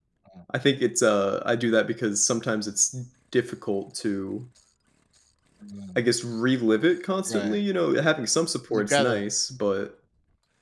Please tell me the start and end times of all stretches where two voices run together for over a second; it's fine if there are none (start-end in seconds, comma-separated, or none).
none